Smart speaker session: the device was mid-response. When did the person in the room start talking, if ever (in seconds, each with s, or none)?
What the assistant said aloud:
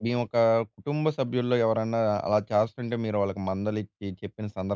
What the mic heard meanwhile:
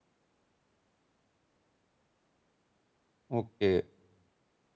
3.4 s